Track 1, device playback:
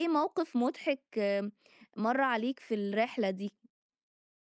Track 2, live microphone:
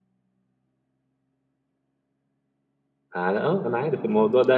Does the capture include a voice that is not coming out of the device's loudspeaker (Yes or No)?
Yes